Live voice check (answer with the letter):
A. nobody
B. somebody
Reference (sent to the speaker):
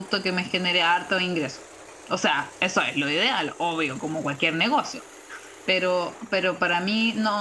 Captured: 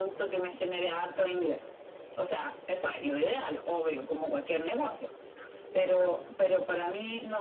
B